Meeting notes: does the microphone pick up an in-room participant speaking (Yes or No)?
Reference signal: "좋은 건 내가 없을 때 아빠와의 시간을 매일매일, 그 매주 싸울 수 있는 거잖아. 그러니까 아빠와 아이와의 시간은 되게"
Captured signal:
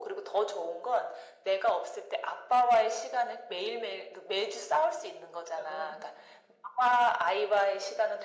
Yes